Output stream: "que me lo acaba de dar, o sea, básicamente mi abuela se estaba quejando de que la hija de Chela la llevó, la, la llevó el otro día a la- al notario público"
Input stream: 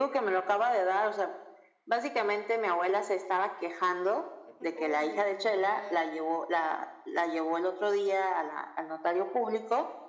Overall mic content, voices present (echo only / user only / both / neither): both